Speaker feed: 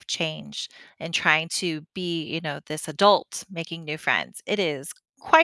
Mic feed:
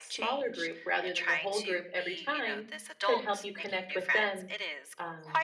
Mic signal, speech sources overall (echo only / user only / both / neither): both